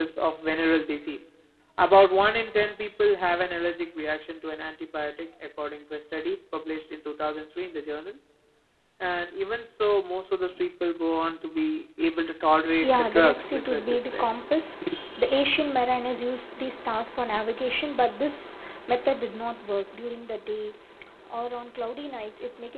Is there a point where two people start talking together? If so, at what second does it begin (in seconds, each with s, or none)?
12.8 s